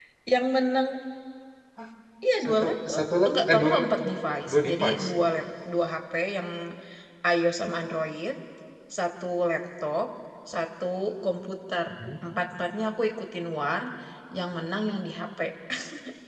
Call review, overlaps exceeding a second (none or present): present